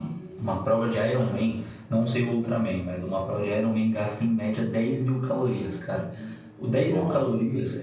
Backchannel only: Yes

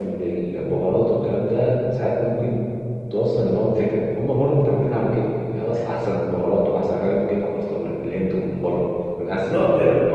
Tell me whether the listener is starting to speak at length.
Yes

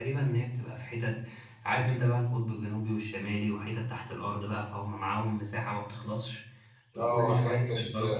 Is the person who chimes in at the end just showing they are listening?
No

